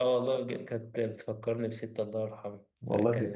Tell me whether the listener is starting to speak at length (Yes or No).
No